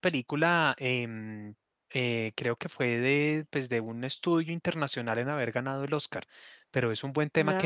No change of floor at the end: Yes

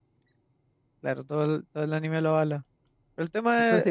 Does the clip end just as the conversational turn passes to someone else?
Yes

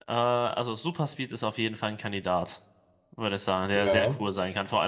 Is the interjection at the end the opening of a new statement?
No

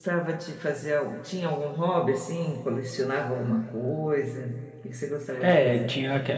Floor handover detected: Yes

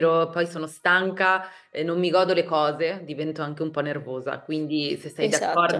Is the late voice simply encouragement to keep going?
Yes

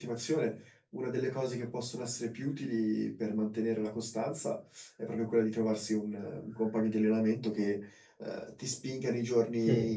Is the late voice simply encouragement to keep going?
Yes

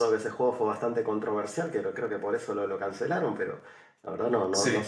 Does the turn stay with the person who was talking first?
Yes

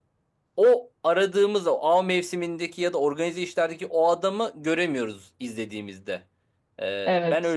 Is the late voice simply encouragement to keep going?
No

